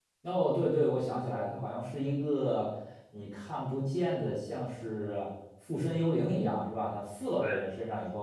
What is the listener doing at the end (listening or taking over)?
listening